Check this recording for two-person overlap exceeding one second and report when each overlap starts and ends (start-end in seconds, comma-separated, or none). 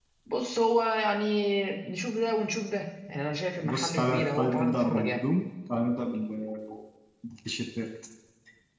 3.6-5.2